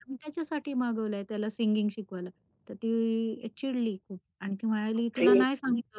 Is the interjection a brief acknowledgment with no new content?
Yes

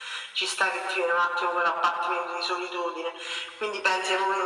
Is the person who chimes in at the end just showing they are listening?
Yes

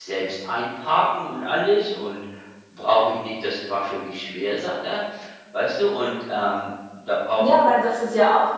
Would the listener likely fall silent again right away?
No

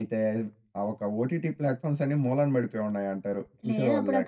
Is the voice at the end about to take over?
Yes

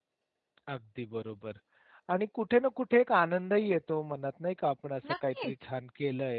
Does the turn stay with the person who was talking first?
Yes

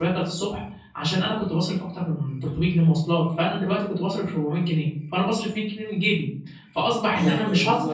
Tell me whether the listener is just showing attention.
Yes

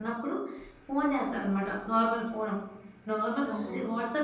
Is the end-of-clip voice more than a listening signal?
No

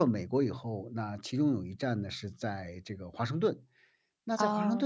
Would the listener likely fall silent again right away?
Yes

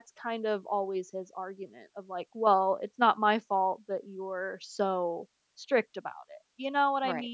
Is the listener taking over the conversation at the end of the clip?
Yes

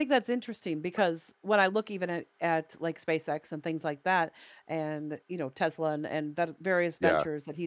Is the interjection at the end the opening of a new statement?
No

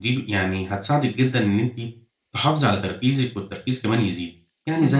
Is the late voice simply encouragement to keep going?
Yes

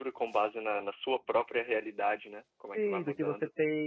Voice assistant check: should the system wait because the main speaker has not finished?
No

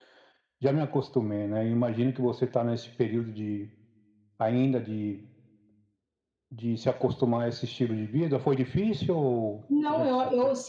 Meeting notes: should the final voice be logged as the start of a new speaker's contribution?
Yes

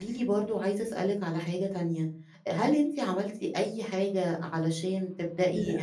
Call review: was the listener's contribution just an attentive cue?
Yes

